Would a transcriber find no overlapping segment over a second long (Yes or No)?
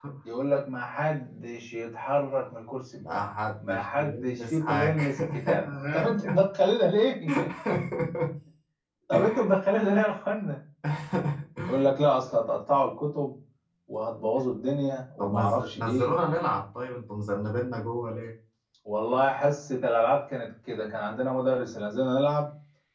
No